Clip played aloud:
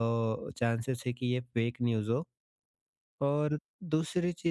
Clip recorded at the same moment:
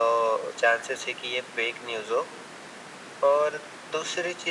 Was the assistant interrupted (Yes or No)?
No